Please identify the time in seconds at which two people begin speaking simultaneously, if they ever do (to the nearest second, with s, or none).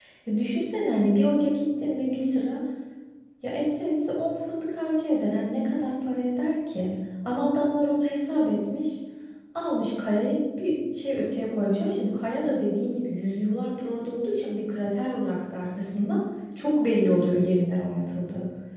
none